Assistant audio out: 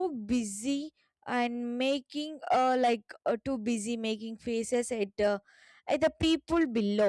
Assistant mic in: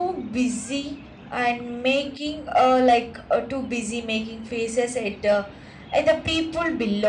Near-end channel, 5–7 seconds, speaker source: echo only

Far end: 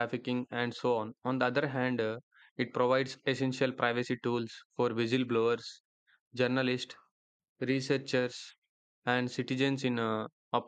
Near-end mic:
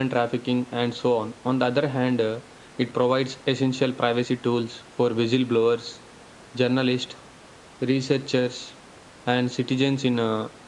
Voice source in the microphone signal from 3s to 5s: echo only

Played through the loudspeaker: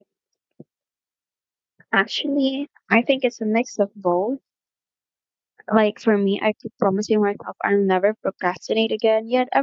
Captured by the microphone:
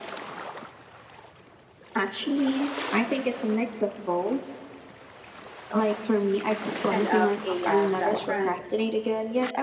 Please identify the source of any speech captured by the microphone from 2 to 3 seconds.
echo only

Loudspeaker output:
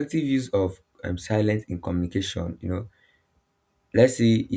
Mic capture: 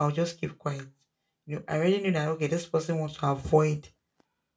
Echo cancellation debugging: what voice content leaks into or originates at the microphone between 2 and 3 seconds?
user only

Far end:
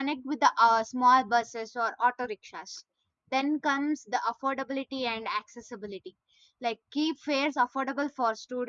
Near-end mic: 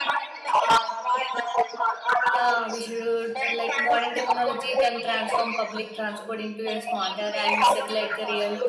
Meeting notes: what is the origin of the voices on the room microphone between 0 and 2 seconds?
echo only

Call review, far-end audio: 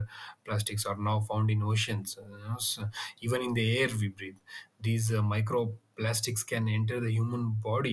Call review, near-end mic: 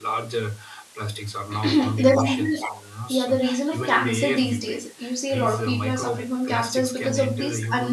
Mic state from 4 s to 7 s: both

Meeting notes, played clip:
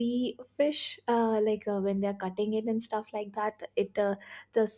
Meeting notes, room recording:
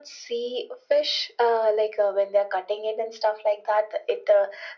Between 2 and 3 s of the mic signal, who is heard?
echo only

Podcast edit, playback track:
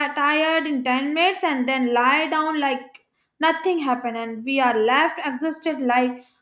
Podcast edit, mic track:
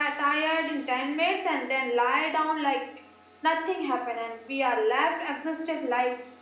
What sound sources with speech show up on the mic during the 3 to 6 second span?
echo only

